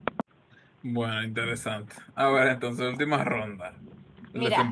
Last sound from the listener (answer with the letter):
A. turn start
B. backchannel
A